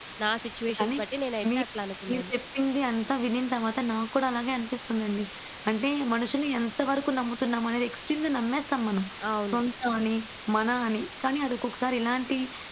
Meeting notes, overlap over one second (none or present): none